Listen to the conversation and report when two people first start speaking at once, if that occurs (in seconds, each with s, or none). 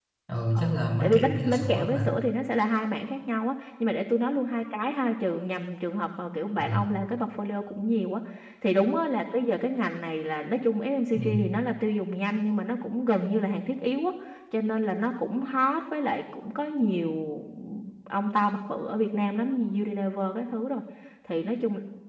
0.6 s